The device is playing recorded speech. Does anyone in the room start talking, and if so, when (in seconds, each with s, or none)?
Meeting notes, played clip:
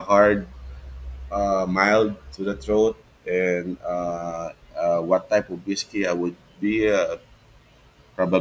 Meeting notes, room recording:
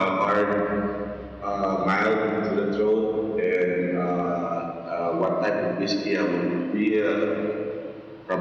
none